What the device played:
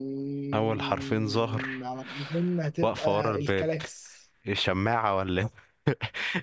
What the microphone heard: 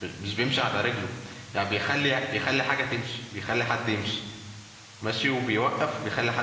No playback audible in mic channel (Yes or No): Yes